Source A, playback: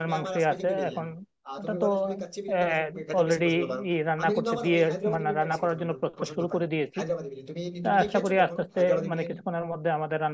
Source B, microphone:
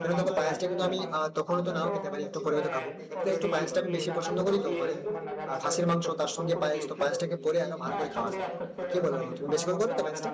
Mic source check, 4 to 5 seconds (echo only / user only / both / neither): both